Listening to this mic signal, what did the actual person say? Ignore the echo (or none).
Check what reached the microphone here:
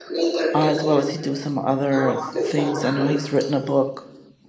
uh, as well as he do some other things. I know he's written a book